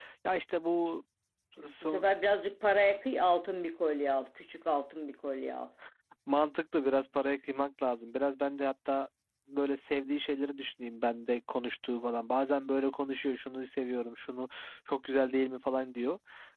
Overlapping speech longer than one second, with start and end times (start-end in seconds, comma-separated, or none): none